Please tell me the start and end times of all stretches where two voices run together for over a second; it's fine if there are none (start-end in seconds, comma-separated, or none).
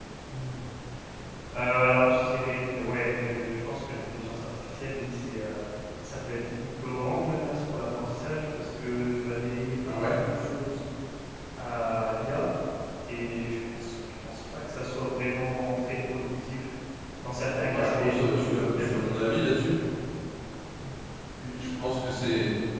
17.6-19.3